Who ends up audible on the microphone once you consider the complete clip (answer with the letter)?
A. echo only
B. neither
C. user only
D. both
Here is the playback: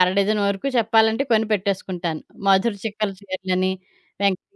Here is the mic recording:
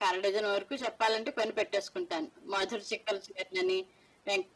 A